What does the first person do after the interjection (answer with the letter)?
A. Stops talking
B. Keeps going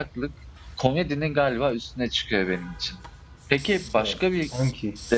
B